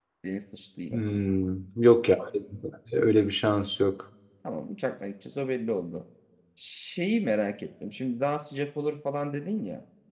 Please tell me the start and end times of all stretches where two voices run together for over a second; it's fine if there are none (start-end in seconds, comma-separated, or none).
none